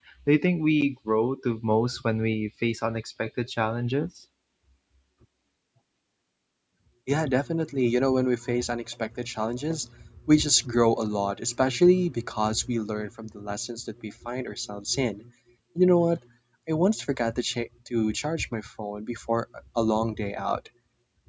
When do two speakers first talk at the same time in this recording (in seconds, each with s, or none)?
none